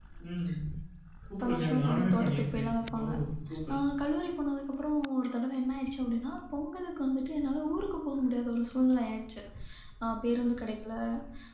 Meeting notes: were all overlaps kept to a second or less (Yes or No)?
No